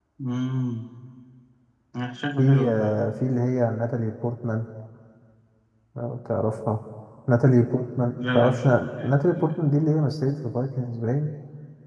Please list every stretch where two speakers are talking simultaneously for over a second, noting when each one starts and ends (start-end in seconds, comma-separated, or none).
8.2-9.5